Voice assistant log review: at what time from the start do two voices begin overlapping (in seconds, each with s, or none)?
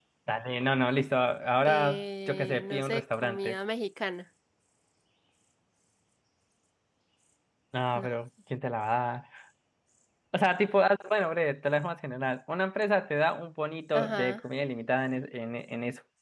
1.6 s